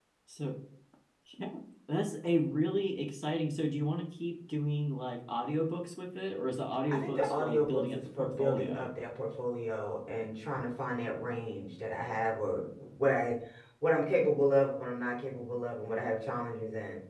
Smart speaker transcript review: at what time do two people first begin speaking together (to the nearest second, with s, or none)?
7 s